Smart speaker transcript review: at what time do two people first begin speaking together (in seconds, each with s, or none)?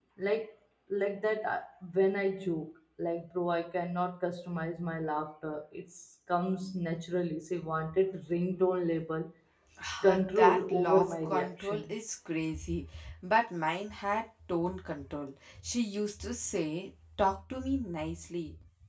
10.1 s